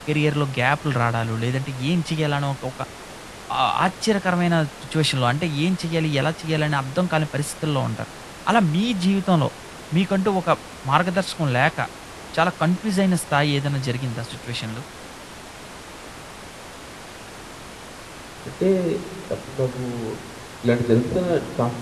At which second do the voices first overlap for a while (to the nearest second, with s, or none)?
none